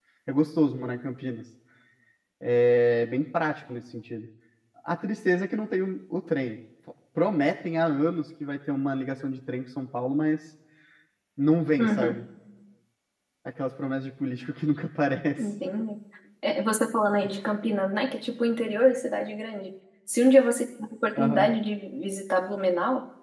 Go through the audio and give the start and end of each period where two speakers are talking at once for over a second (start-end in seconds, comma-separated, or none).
none